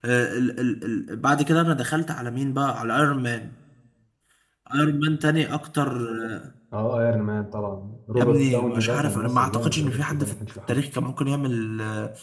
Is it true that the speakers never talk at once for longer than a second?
No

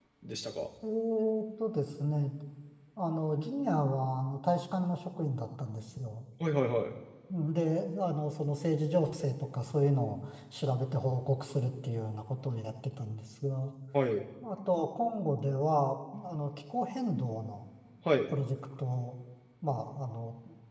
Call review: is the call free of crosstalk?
Yes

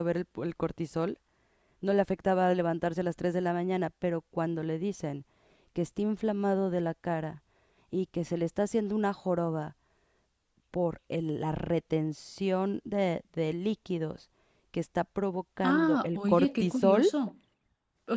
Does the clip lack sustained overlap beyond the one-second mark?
No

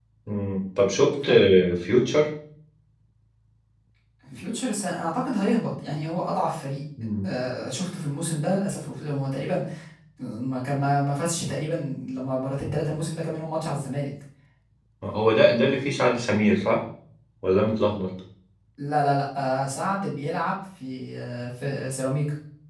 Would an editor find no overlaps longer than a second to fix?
Yes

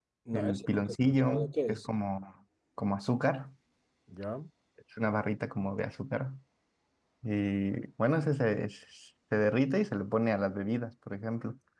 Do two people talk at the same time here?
Yes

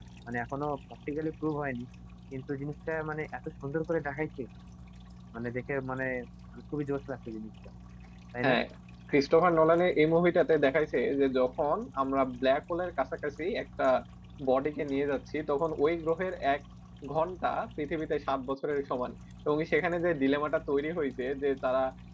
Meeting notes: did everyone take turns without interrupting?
Yes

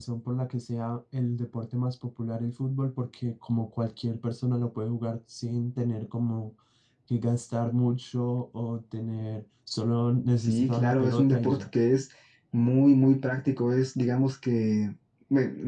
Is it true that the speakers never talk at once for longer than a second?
No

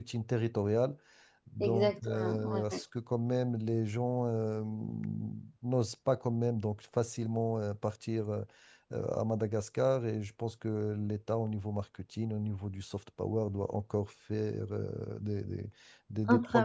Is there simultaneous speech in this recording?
Yes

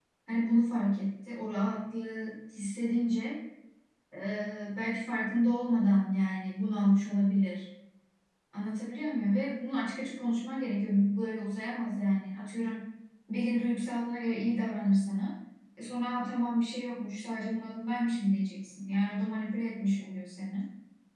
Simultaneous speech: No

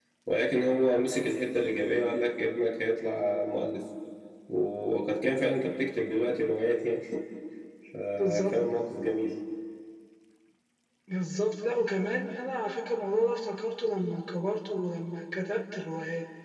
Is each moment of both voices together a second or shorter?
Yes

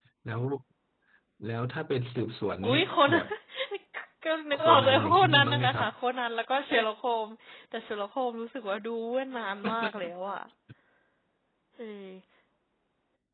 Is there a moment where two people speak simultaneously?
Yes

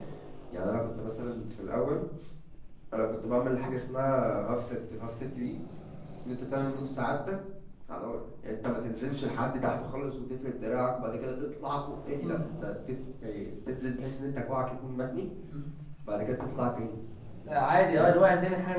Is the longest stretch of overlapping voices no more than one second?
Yes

